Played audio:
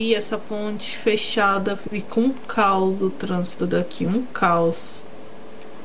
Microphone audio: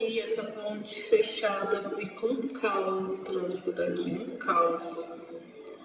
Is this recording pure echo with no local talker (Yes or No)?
Yes